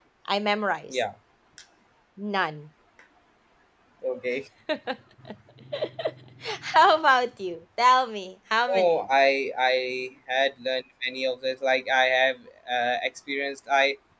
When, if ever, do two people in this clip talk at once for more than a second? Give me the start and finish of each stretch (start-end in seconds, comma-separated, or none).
none